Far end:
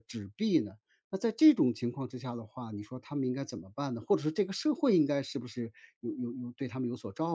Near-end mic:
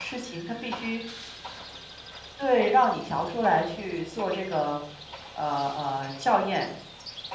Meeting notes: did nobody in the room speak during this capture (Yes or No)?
No